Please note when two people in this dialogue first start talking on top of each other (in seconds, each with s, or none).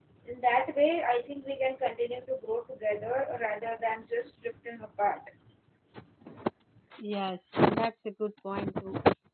none